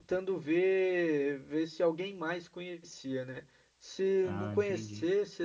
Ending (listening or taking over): listening